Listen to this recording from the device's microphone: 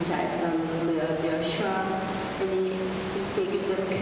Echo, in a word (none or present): present